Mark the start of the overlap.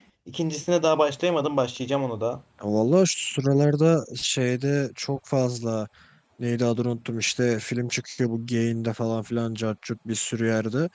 none

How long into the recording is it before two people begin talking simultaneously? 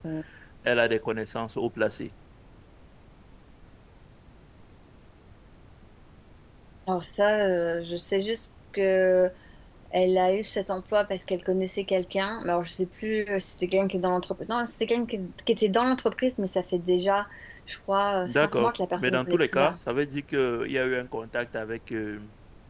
18.2 s

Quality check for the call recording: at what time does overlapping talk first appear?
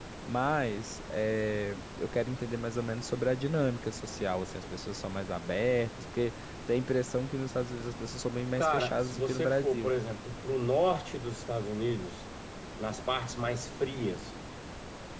8.6 s

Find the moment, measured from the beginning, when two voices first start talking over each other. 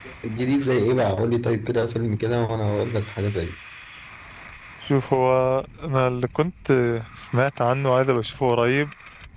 none

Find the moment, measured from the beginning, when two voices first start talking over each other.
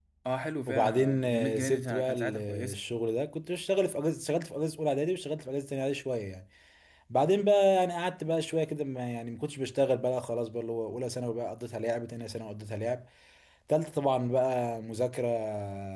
0.7 s

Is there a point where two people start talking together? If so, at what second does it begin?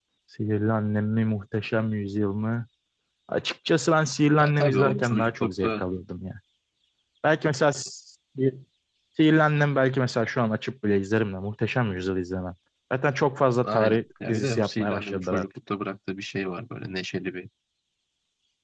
4.4 s

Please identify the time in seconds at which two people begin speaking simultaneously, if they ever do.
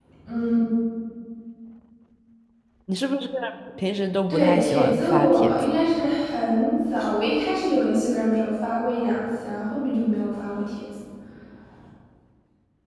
4.3 s

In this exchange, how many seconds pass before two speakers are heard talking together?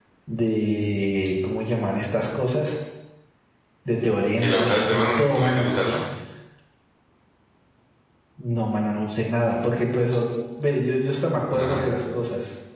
4.4 s

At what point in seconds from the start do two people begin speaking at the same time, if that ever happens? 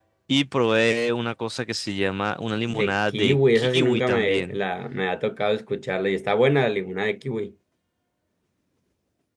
2.7 s

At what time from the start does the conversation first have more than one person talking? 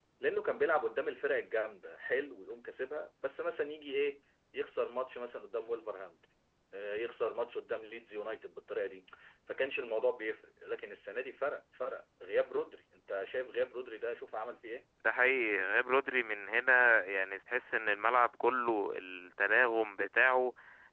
none

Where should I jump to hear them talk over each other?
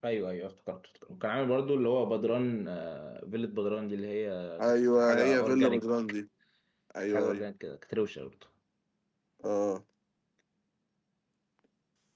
4.6 s

